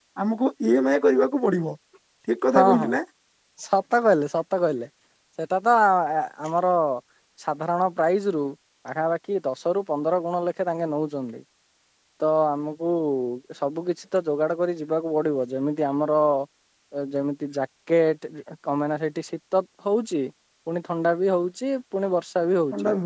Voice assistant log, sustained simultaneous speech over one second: none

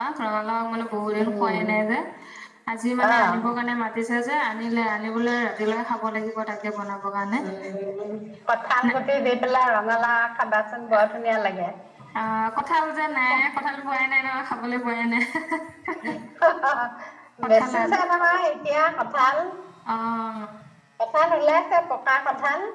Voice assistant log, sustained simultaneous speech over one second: none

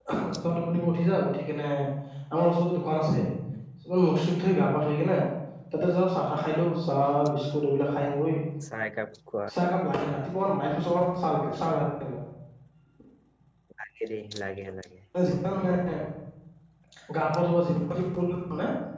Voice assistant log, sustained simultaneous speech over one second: none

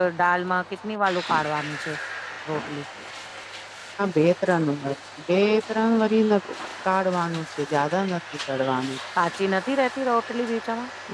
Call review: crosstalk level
none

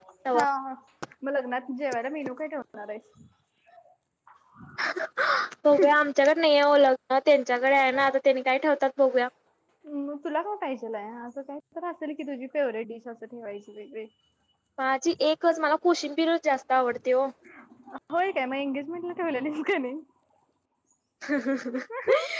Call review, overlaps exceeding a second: none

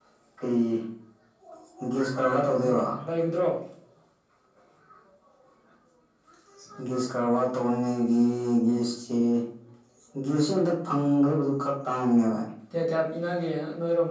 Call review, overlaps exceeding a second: none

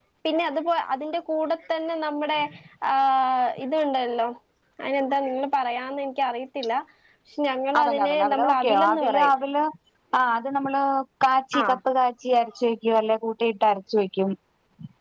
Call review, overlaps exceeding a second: present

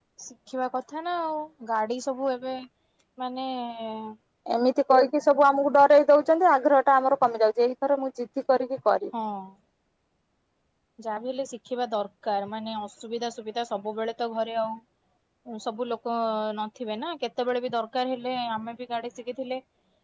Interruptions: none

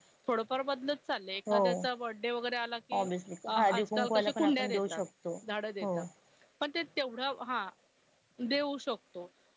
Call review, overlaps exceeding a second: present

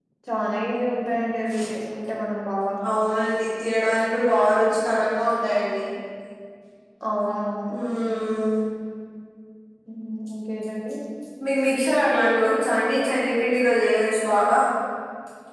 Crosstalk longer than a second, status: none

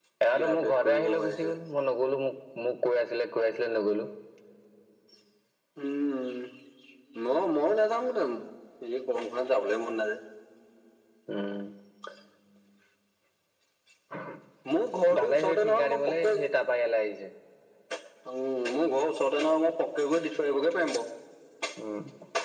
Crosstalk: present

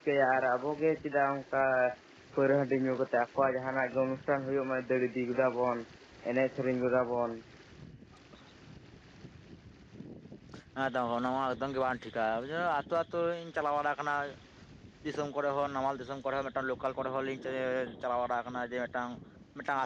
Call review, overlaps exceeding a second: none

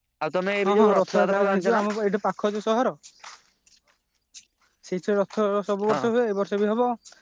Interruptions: present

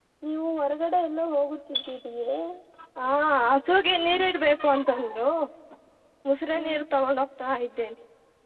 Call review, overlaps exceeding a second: none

